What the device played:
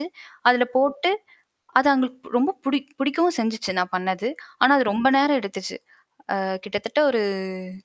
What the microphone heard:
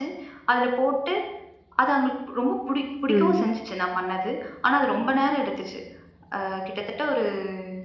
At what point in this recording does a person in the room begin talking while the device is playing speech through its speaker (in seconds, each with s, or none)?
3.1 s